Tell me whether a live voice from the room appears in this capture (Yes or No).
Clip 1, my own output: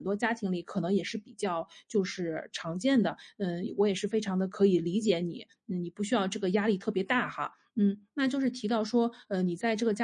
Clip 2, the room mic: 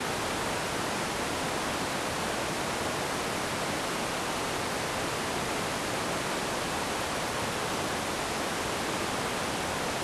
No